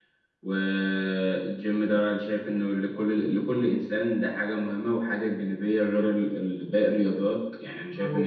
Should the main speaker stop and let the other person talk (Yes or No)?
Yes